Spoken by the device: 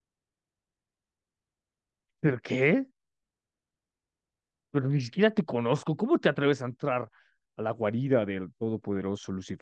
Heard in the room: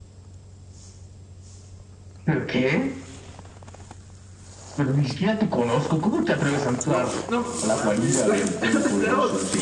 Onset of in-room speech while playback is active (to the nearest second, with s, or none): 7 s